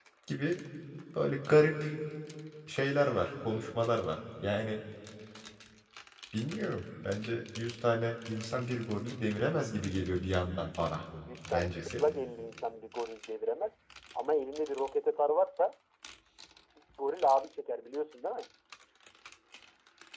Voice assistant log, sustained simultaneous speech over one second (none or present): none